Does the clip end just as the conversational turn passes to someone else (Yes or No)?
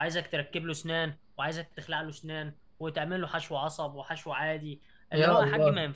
No